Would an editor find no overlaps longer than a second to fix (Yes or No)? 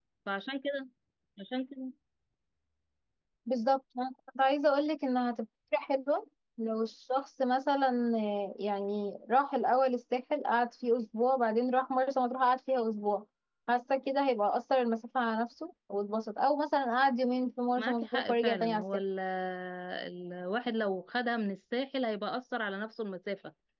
No